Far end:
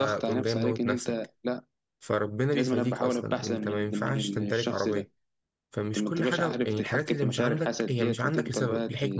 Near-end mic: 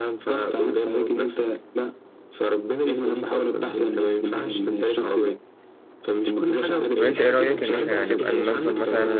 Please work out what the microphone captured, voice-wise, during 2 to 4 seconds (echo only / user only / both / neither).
echo only